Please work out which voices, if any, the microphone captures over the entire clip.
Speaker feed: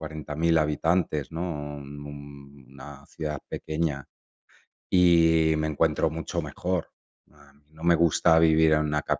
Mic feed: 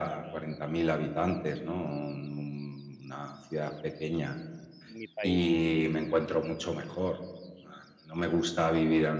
both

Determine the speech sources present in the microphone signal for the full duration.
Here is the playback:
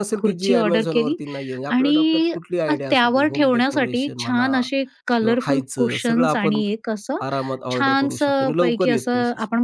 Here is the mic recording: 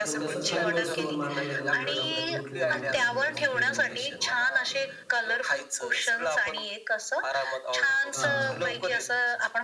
both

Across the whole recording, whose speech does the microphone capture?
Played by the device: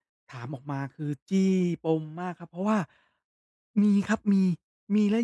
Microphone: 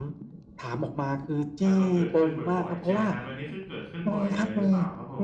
both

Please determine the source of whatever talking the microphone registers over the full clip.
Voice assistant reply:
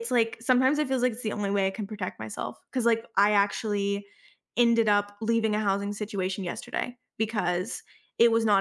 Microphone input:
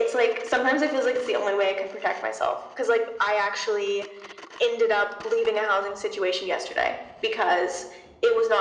echo only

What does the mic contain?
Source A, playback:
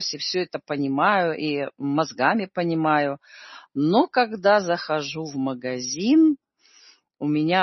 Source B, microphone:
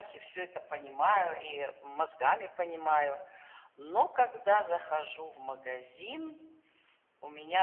echo only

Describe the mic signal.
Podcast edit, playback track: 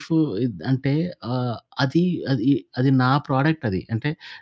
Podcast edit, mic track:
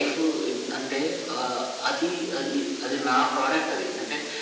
echo only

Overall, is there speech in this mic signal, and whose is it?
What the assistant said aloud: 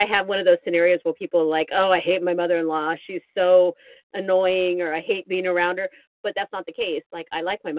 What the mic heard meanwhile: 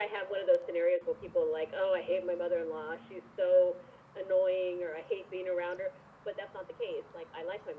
echo only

